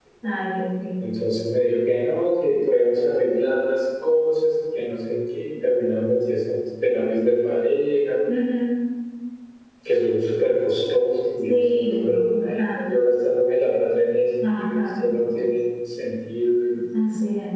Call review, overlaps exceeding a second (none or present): present